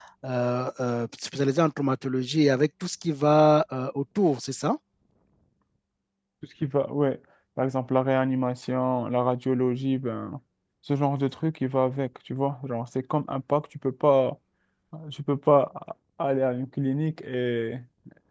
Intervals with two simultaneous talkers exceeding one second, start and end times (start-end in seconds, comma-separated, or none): none